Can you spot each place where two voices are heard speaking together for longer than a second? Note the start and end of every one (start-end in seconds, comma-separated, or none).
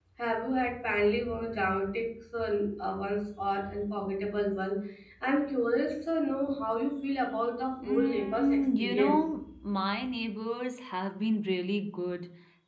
7.8-9.3